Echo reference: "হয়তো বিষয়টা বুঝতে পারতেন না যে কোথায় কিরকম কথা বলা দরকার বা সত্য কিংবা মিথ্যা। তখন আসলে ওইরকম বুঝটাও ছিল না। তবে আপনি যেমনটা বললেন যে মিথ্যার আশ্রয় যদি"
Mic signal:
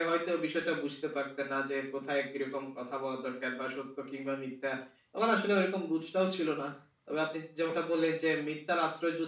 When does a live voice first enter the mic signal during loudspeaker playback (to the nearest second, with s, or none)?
none